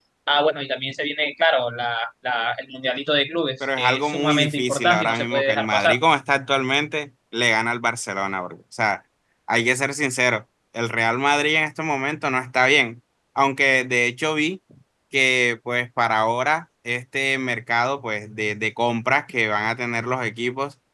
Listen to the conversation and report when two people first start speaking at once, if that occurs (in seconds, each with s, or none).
3.6 s